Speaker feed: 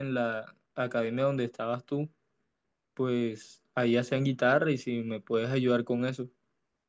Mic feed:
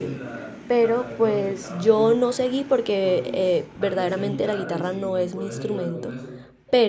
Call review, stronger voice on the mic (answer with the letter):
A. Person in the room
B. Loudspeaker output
A